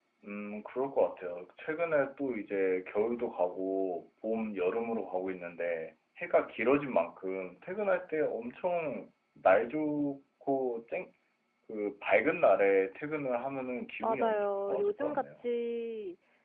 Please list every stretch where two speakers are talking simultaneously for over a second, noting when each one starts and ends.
14.0-15.4

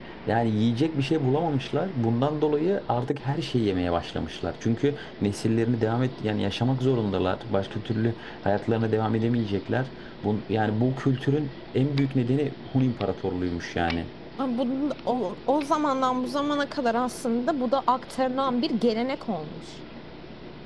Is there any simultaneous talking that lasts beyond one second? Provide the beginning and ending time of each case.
none

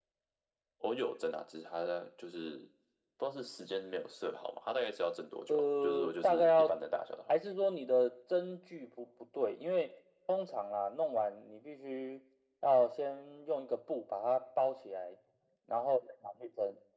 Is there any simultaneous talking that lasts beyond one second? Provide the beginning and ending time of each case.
5.5-6.8

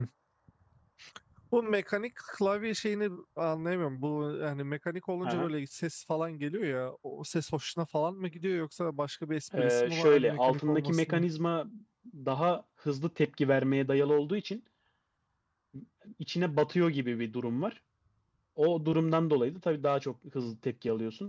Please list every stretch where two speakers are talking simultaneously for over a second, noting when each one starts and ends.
9.6-11.2

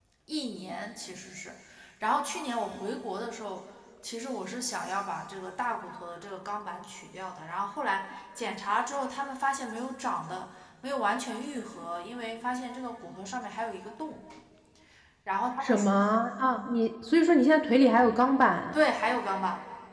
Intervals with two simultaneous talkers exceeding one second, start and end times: none

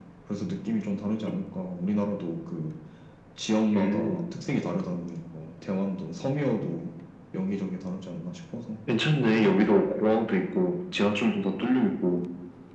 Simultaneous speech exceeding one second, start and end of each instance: none

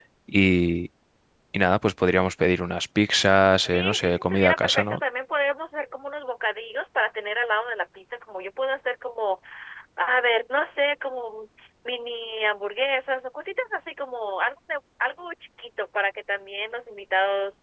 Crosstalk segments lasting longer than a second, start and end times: 3.6-5.0

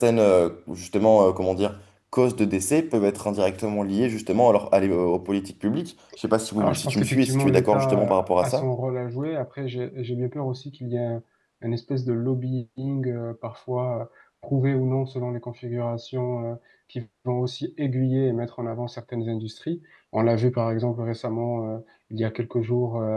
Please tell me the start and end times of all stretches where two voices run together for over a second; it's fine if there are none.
6.6-8.6

